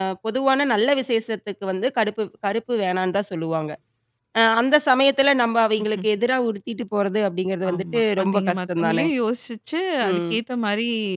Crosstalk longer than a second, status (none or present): present